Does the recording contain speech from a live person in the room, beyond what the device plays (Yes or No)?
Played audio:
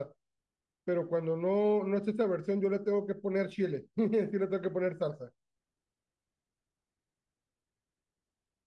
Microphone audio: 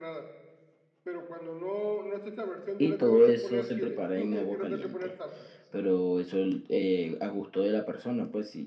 Yes